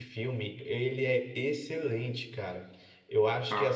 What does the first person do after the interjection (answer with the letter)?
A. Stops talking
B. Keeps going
B